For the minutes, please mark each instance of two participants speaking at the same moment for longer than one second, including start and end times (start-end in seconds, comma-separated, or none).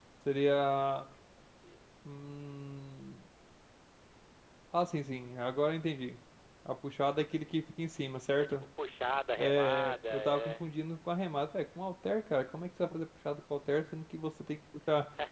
9.4-10.7